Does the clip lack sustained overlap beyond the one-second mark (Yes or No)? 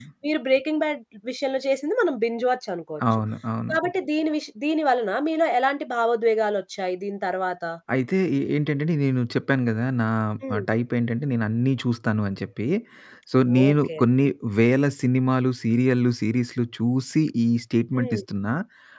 Yes